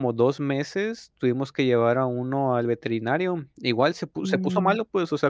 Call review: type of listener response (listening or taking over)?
listening